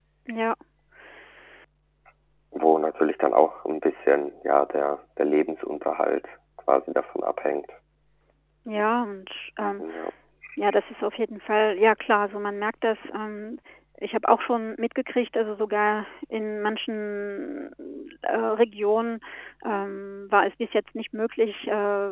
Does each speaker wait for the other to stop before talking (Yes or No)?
Yes